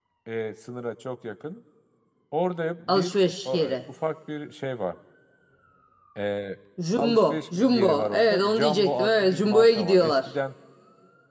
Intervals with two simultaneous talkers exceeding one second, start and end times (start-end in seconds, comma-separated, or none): 7.0-10.3